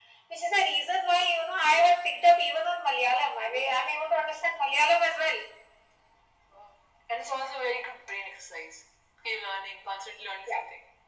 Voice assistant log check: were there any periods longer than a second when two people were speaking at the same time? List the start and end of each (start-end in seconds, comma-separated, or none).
none